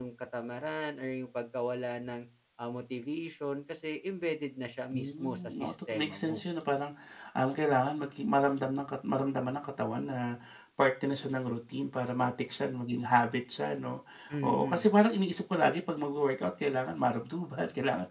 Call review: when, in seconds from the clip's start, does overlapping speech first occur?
4.9 s

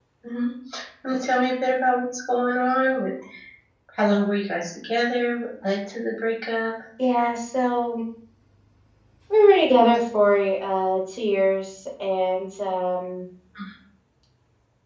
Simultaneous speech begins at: none

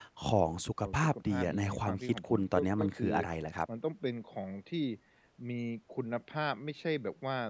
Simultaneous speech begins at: 0.8 s

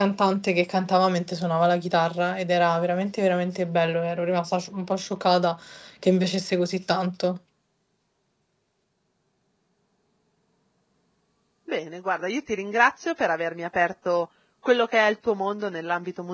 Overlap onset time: none

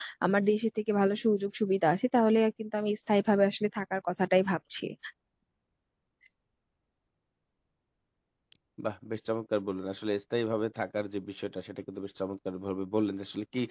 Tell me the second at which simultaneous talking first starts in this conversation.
none

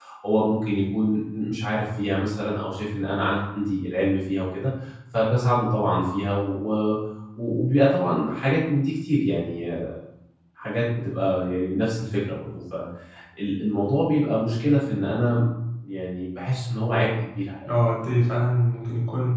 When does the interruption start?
none

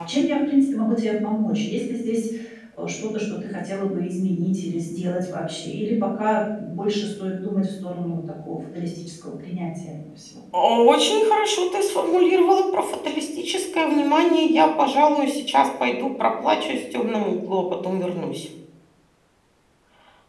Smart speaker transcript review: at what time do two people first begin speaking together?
none

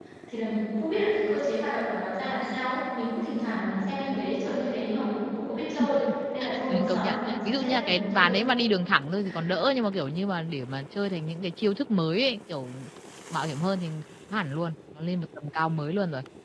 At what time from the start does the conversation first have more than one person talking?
6.7 s

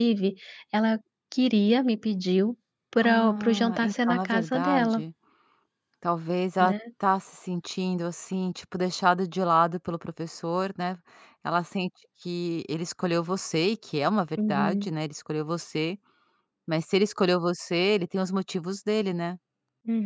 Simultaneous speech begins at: 3.0 s

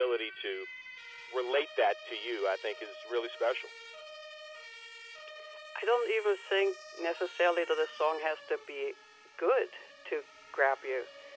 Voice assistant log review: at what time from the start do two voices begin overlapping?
none

